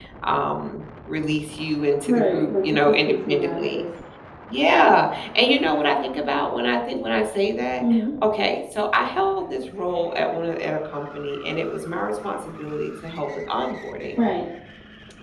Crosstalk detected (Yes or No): Yes